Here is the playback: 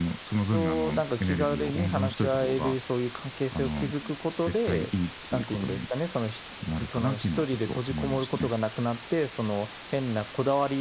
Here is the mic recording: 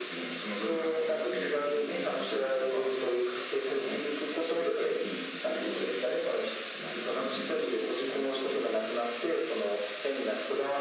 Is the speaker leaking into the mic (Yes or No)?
Yes